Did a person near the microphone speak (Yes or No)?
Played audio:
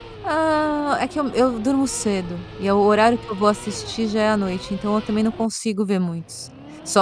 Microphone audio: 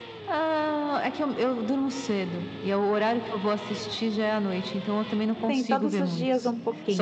Yes